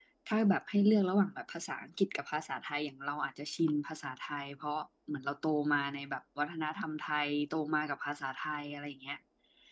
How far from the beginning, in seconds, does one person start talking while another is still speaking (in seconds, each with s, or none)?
none